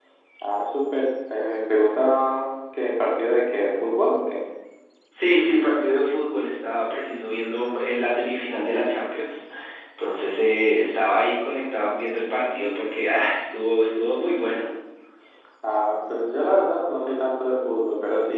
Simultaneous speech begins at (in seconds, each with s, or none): none